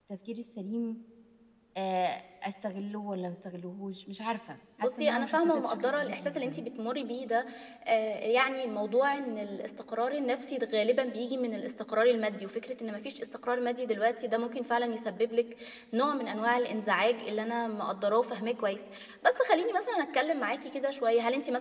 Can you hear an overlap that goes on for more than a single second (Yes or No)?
Yes